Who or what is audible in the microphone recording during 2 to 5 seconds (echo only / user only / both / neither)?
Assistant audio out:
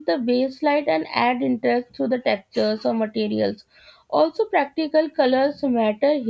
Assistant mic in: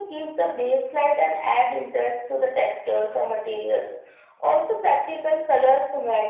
echo only